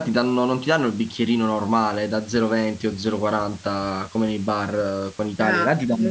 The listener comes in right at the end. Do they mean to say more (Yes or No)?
No